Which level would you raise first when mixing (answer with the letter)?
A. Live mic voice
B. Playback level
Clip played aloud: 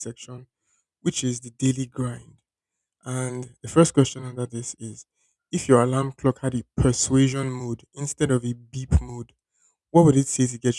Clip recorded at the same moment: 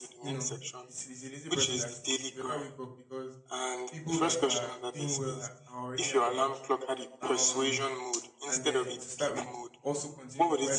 A